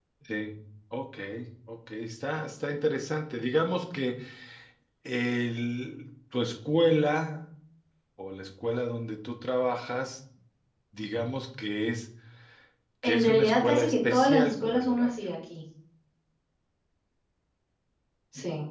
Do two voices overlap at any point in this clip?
Yes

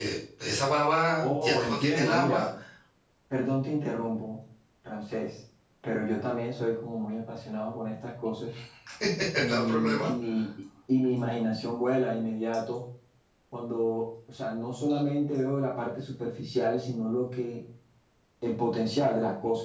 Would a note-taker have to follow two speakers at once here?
Yes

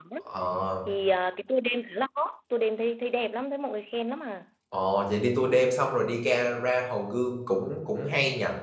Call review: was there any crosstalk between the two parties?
No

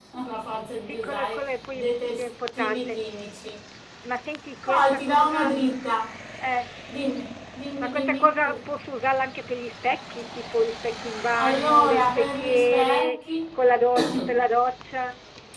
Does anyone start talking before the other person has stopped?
Yes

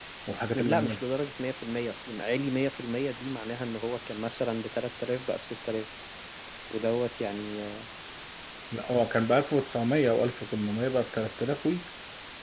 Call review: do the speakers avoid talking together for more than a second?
Yes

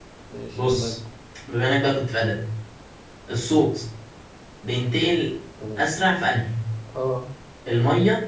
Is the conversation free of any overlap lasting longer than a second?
Yes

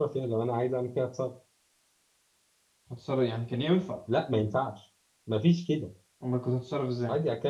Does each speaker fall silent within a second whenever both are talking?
Yes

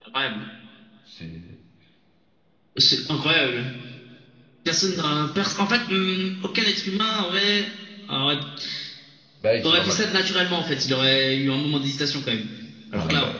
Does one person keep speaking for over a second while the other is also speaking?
No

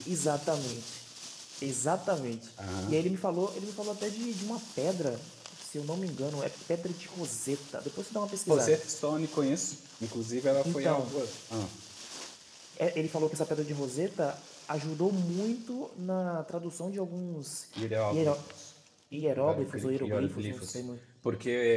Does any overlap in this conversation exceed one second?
Yes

